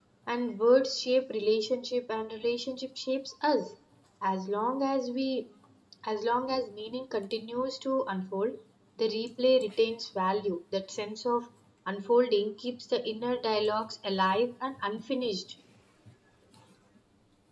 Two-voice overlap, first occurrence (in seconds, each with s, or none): none